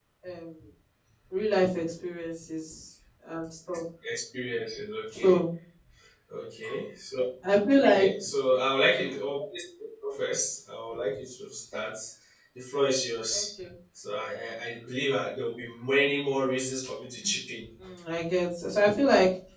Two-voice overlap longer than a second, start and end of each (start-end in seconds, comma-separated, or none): none